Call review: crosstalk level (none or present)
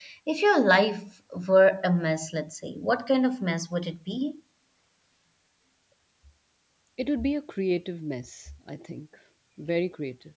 none